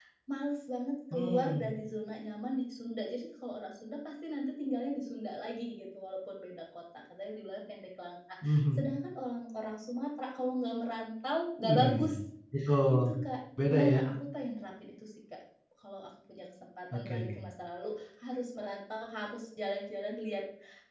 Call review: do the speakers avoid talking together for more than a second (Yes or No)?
Yes